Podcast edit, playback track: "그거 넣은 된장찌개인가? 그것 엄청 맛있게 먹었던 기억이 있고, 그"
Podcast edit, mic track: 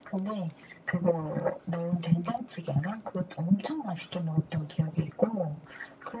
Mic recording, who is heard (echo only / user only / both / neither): echo only